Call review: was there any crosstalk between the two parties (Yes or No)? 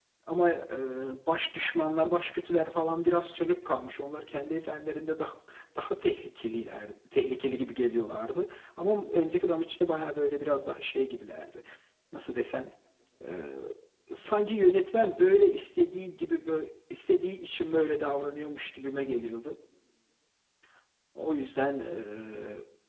No